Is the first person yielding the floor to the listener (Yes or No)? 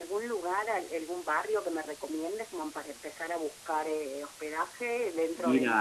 No